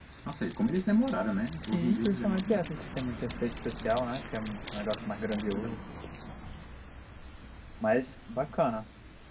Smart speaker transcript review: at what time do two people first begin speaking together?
2 s

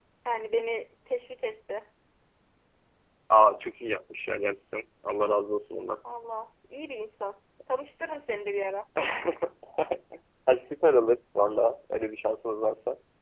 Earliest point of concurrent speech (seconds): none

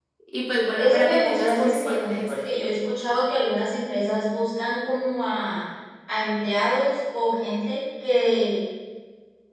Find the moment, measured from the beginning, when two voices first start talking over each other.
1 s

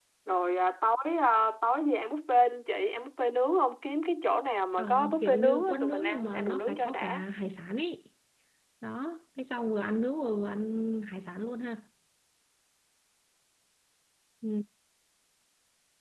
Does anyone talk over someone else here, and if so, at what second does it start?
5 s

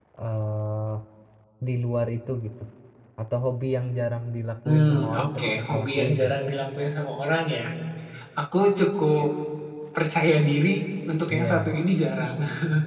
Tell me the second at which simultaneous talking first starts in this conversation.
5 s

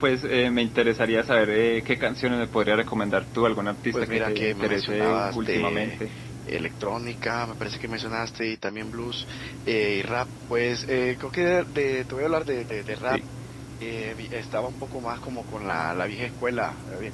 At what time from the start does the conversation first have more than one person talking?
4 s

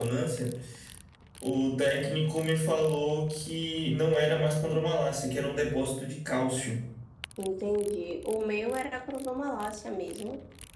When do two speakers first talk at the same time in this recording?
none

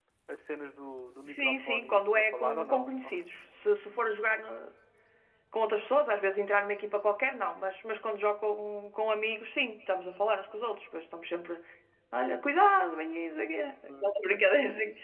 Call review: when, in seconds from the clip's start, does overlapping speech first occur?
1 s

